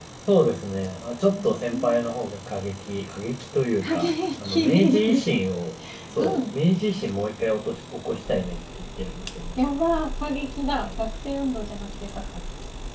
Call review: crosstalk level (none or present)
present